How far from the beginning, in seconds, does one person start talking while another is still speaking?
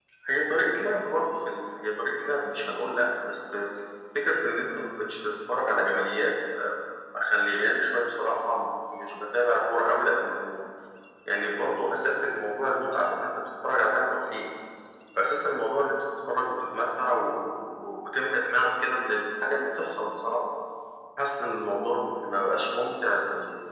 none

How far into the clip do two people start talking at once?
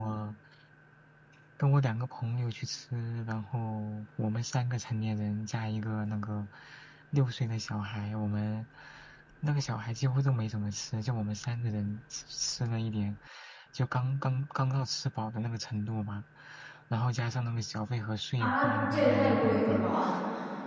18.4 s

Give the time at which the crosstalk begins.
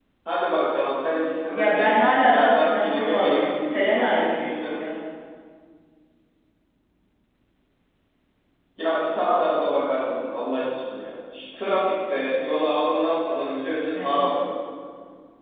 1.5 s

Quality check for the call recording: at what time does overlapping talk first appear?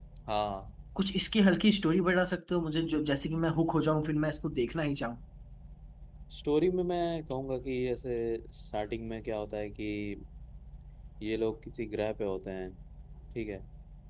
none

